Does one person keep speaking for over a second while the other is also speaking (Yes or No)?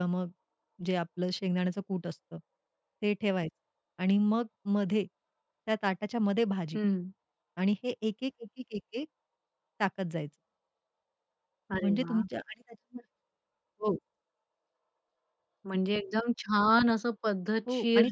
No